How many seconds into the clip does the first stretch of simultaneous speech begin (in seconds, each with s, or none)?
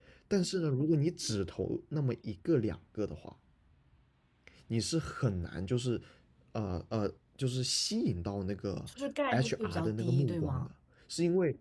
9.3 s